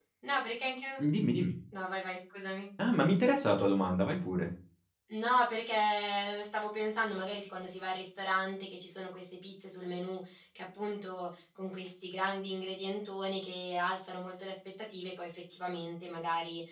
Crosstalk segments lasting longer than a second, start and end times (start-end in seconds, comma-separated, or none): none